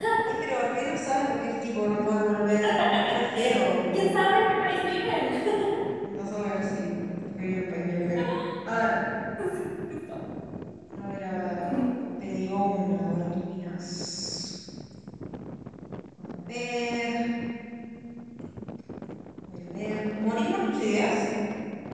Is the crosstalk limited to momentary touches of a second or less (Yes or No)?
Yes